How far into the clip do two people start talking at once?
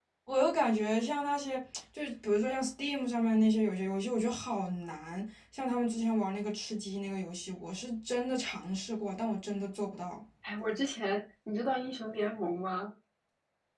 none

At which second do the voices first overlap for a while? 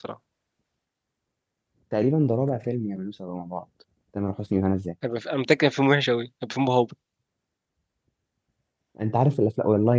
none

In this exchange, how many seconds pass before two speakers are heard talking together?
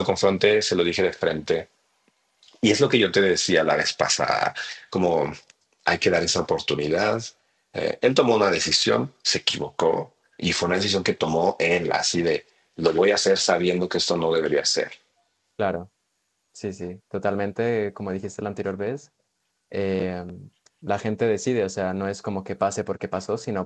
none

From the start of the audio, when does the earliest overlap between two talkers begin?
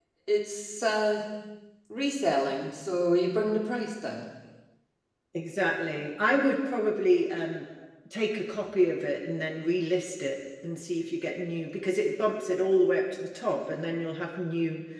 none

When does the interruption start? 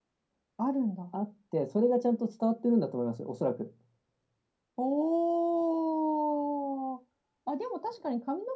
none

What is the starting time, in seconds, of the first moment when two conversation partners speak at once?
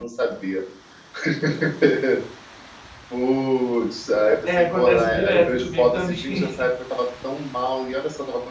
4.4 s

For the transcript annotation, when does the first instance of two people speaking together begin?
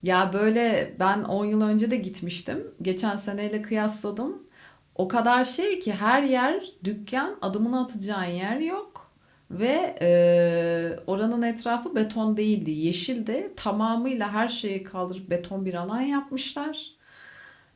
none

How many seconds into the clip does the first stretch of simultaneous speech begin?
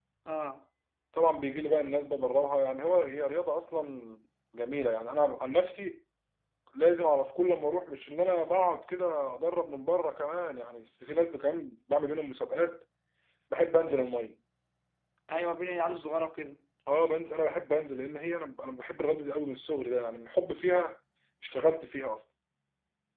none

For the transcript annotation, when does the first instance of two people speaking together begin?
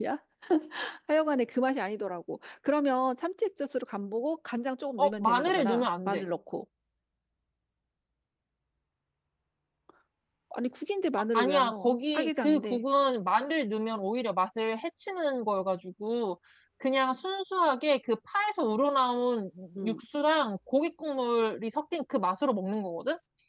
5.0 s

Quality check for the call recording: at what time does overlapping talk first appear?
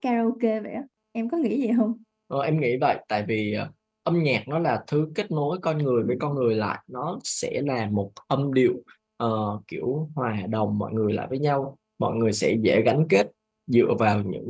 none

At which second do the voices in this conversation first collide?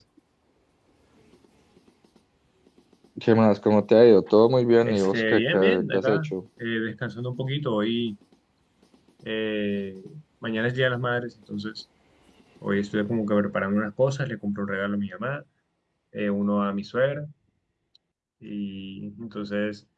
4.8 s

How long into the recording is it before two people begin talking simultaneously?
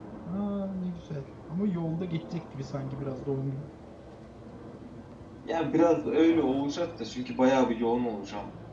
none

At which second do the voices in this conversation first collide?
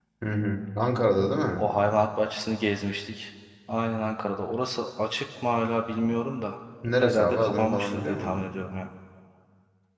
7.0 s

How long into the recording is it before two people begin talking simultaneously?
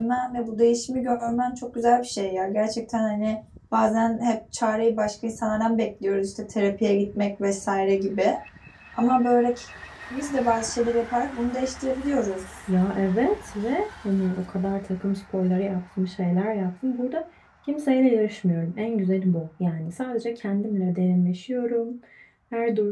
none

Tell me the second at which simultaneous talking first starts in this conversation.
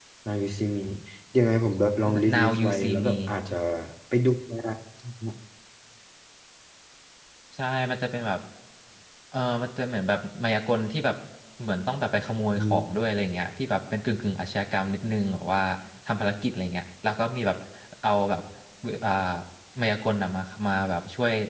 2.0 s

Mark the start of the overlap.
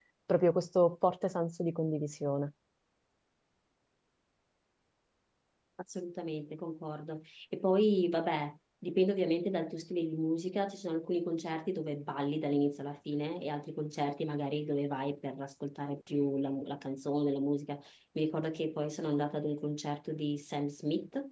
none

